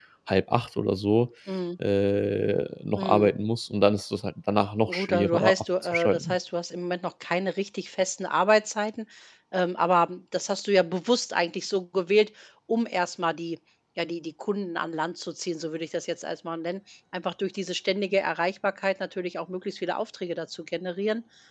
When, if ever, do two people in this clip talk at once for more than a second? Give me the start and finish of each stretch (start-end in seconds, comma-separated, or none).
4.9-6.3